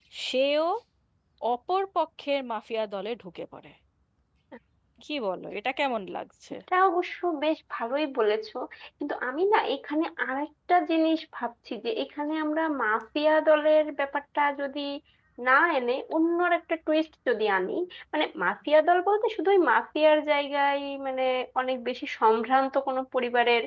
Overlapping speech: No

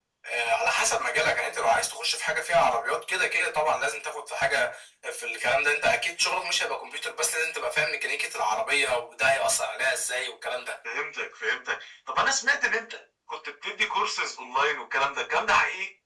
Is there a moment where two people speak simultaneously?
No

